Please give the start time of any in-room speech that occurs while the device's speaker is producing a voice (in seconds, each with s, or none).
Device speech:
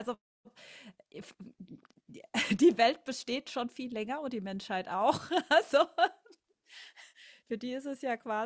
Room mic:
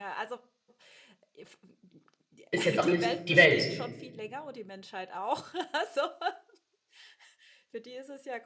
2.5 s